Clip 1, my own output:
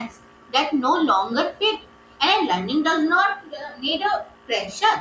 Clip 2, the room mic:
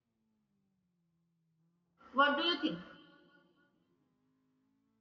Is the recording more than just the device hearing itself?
Yes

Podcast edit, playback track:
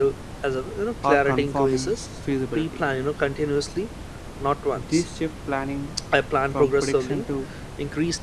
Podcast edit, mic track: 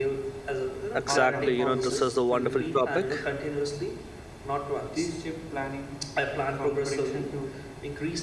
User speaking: Yes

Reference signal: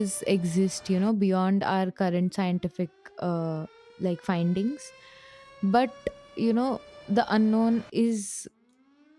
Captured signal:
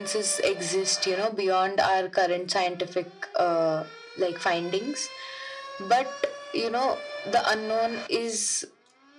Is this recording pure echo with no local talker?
Yes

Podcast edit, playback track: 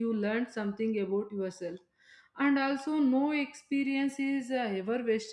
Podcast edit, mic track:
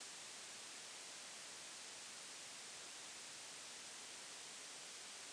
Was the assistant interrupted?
No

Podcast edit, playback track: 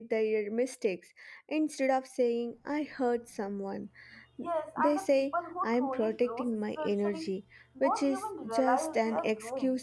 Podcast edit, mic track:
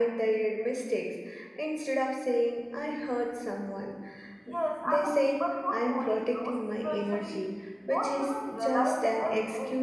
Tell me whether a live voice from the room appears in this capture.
No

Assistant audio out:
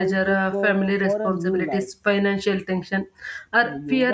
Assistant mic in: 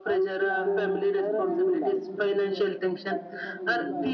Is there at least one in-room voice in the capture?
Yes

